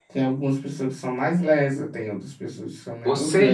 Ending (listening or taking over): taking over